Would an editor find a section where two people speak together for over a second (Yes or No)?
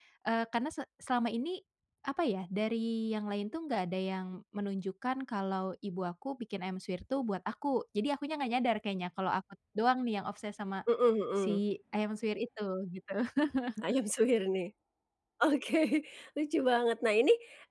No